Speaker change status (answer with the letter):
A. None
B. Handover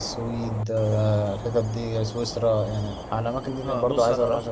B